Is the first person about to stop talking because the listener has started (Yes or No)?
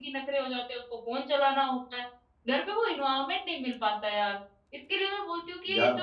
No